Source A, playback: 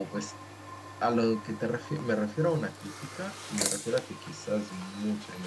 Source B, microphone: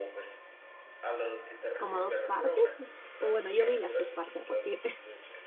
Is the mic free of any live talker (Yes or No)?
No